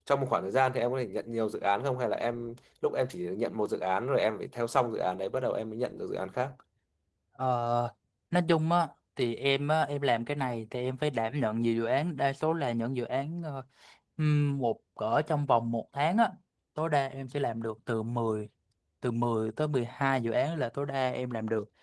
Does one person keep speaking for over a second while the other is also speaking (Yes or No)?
No